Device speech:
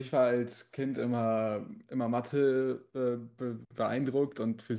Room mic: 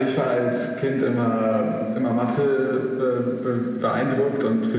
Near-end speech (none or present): none